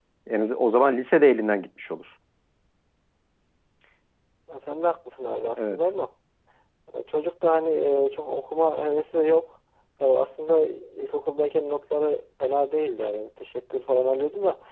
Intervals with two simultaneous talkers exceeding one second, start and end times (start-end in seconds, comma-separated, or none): none